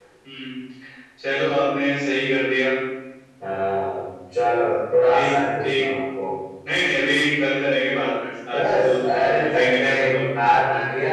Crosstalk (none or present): present